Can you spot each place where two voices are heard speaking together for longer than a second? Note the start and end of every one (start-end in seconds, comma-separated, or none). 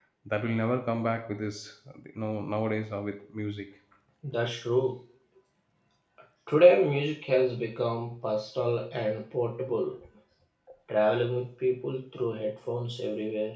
none